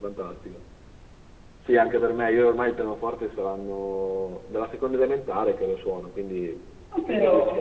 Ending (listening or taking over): listening